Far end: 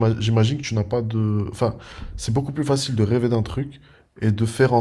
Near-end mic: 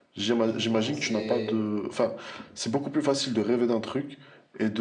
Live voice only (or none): Exactement. Et c'est